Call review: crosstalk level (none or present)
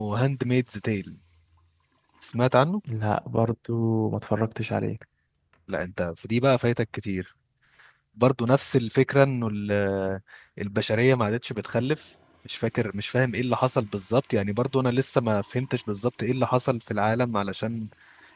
none